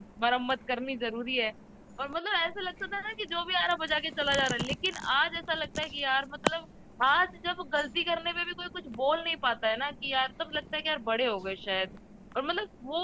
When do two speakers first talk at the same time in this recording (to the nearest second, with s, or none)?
none